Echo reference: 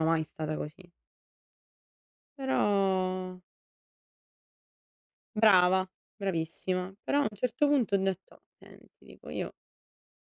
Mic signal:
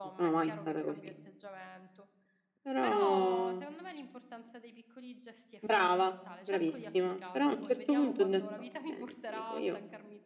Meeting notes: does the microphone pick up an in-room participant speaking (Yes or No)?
Yes